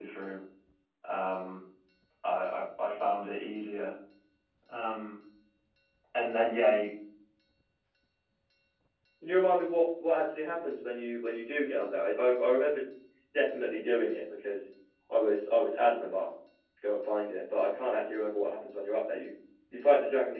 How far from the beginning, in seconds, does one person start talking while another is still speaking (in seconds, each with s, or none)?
none